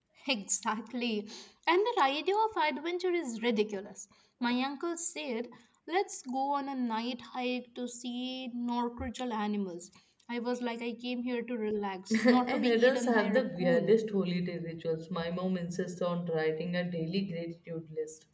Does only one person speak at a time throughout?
No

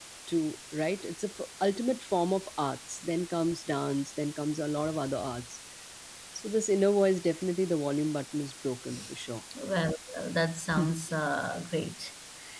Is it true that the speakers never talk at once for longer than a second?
Yes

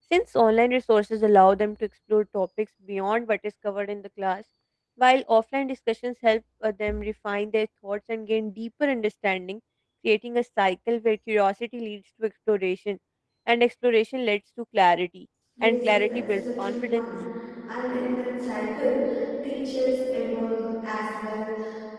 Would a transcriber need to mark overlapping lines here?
Yes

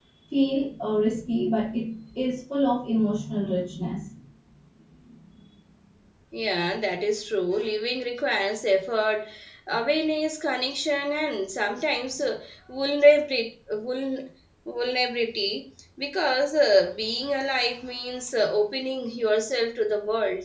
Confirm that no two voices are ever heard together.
Yes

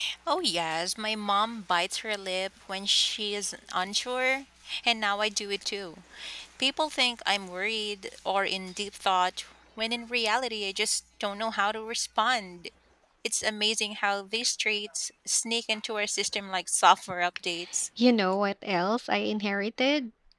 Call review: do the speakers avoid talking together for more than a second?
Yes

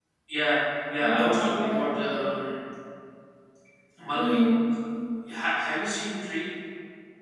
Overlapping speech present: Yes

